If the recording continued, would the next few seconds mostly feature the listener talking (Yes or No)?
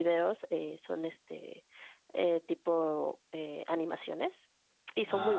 No